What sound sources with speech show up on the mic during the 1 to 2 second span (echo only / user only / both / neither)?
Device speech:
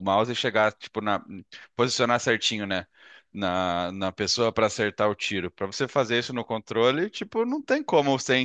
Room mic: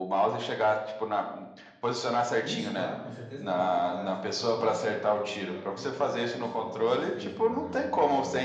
echo only